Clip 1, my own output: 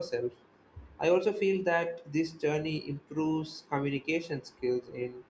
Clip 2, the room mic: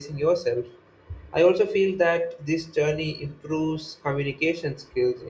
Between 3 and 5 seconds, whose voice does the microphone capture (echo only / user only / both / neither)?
echo only